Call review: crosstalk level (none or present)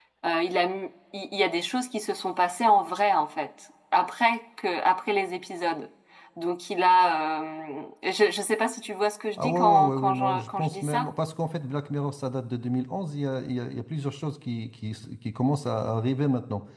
present